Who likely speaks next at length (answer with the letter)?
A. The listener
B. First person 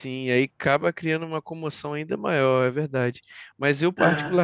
B